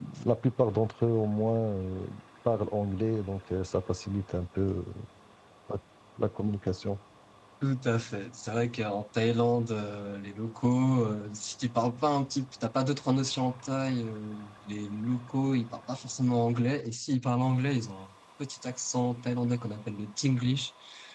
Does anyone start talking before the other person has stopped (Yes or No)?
No